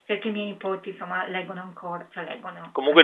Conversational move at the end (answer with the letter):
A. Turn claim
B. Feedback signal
A